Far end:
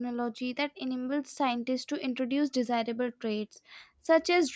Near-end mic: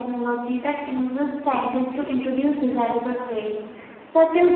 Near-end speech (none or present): none